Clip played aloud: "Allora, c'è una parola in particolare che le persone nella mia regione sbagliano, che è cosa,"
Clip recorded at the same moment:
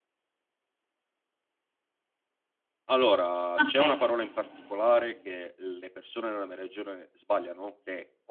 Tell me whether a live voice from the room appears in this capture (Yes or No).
Yes